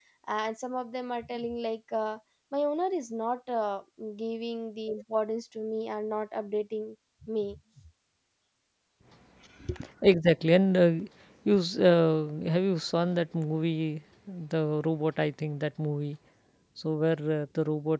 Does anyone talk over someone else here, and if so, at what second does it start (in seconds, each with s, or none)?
none